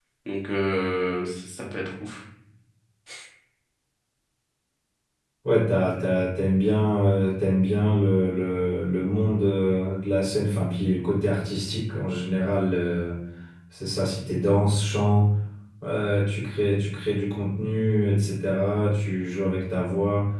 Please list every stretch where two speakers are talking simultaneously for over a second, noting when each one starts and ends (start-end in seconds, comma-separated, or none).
none